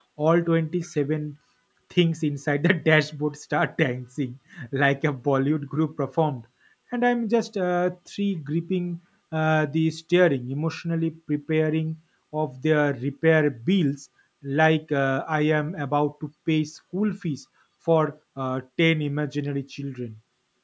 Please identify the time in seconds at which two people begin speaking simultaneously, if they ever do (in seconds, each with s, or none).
none